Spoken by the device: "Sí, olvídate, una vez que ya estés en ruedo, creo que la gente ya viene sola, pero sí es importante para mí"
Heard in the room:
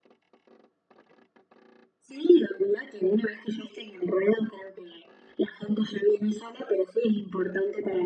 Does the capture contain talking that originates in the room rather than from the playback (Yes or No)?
No